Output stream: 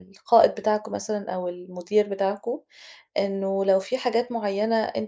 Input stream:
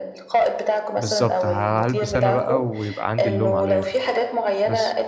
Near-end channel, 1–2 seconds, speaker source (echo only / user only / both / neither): both